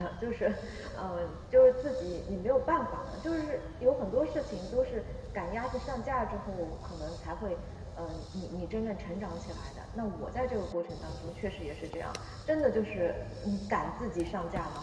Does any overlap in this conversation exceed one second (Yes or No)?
No